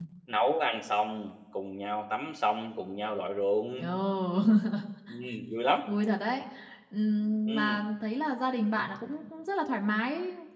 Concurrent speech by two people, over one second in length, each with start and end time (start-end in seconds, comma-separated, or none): none